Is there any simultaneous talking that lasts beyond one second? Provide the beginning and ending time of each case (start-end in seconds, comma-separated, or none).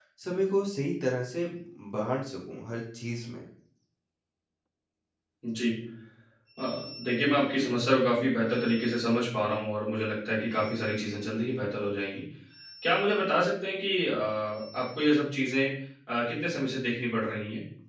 none